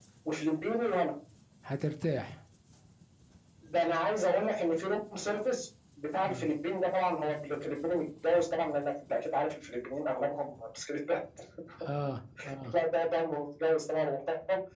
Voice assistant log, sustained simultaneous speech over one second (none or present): none